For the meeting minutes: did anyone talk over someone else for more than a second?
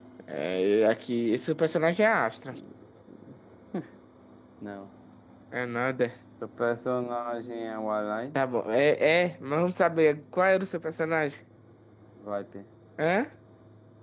No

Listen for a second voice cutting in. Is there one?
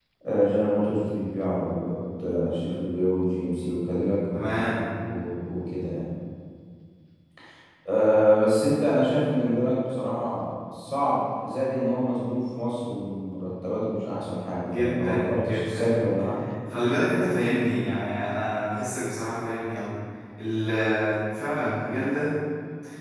Yes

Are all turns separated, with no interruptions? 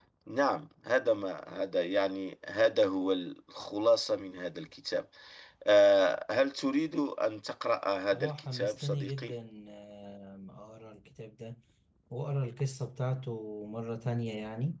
No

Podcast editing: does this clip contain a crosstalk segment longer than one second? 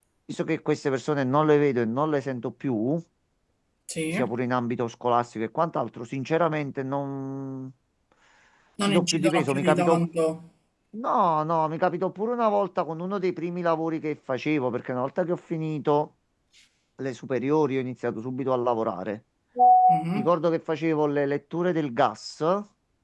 Yes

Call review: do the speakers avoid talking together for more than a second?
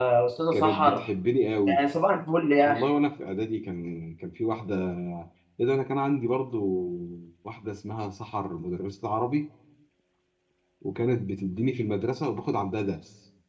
Yes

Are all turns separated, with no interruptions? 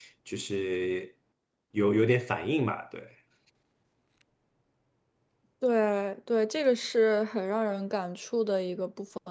Yes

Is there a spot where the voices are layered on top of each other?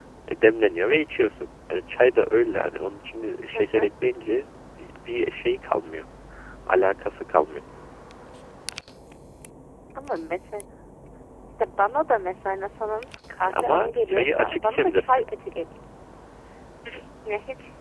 Yes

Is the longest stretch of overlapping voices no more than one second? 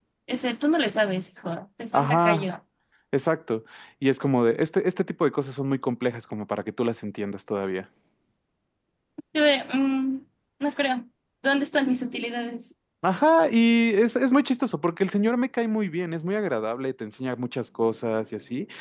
Yes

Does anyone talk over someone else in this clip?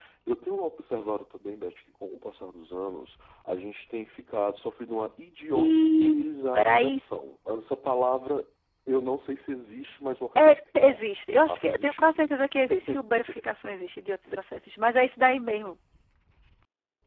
Yes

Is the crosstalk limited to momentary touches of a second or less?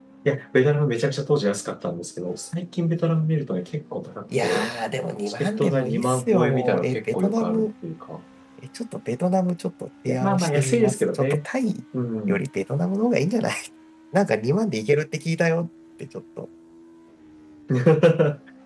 No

